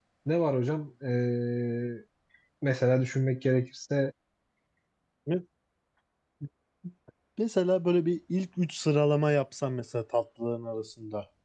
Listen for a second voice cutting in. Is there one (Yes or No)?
No